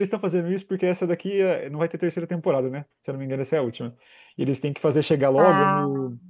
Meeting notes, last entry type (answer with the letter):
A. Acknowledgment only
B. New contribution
A